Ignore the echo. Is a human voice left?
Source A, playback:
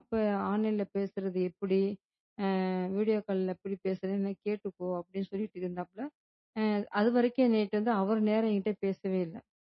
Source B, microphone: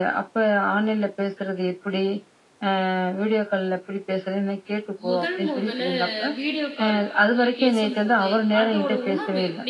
Yes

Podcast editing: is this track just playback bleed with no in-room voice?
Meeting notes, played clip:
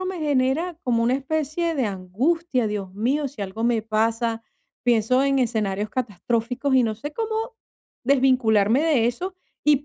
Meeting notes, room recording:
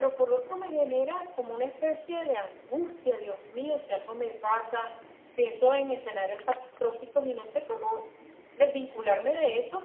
Yes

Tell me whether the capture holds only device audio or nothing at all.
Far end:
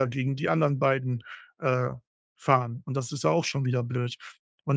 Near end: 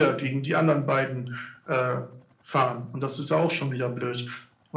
Yes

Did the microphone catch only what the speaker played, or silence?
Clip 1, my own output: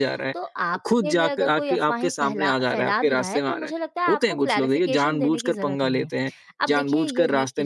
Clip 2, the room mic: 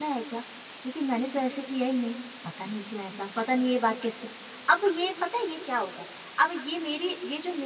No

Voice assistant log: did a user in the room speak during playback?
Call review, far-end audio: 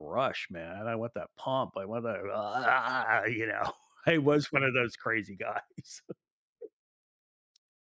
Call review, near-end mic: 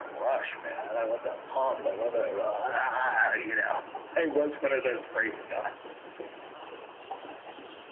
No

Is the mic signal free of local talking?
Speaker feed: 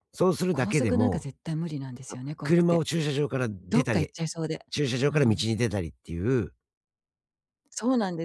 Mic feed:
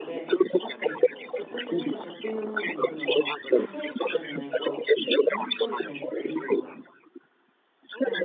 No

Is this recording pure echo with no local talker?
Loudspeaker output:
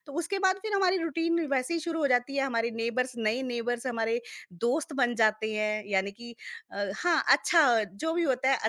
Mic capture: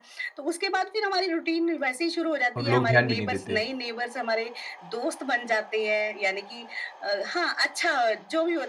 No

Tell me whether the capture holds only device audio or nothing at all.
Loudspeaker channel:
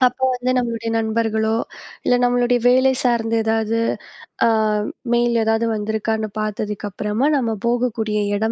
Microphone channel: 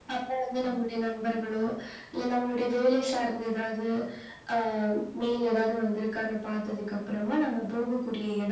Yes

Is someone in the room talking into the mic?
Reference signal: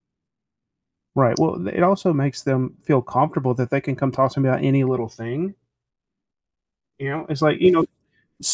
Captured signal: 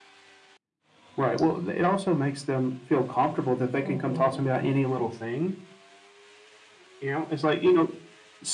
Yes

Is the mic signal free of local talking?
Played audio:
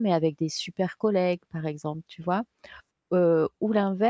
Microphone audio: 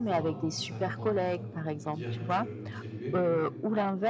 No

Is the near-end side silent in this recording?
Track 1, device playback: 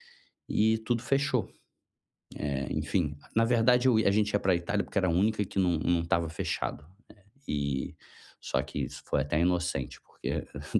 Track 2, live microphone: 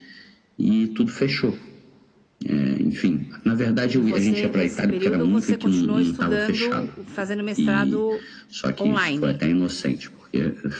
No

